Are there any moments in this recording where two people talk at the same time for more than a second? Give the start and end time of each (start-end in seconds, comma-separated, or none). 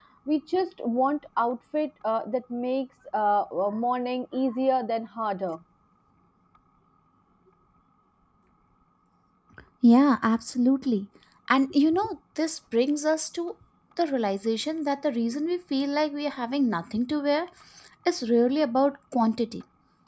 none